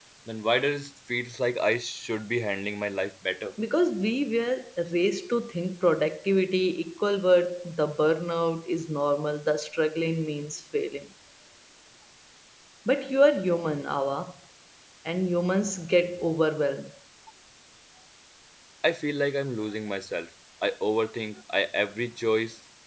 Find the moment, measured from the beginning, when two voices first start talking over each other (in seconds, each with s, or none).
none